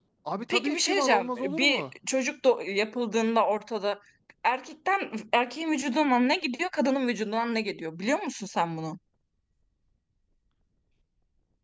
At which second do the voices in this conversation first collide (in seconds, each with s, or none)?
0.5 s